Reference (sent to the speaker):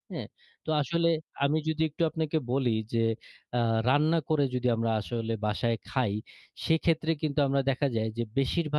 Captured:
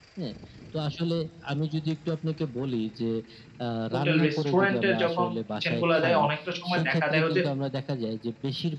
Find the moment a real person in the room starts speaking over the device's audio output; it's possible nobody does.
4 s

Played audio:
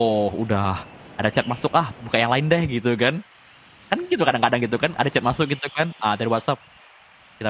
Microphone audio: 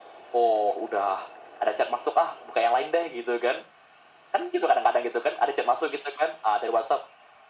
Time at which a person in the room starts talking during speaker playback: none

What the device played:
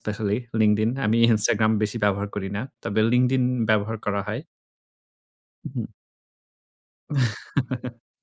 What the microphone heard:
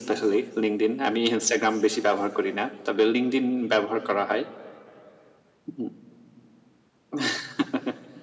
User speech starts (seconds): none

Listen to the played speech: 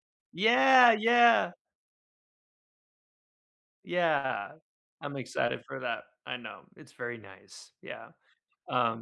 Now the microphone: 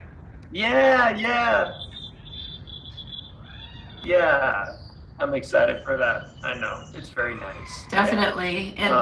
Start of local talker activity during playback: 8 s

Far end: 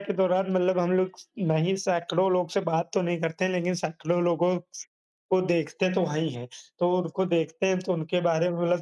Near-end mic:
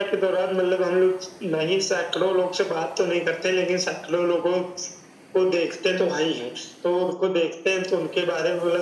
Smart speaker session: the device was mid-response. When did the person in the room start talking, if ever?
none

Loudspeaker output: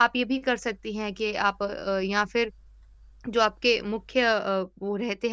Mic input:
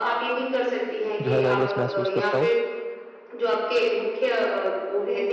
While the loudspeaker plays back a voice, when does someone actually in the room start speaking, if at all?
1 s

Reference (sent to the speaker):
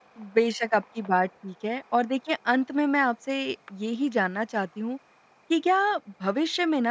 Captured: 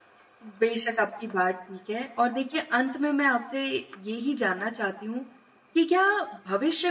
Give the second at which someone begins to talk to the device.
none

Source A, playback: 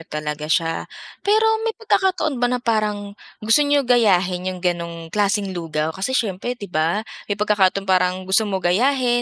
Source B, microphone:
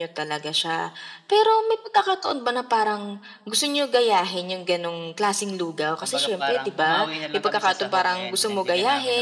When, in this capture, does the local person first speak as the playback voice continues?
6 s

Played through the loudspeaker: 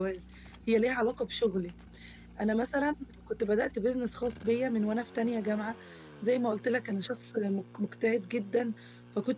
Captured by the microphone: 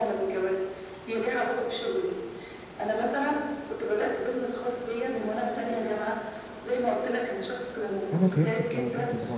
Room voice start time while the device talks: 8 s

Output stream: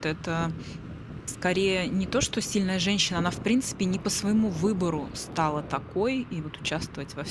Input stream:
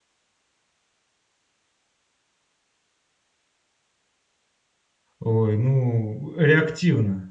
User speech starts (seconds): 5 s

